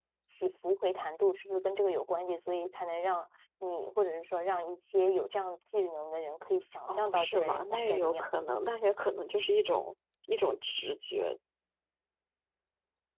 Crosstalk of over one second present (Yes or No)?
Yes